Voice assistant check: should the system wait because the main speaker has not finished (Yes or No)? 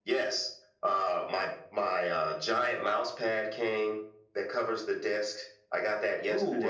No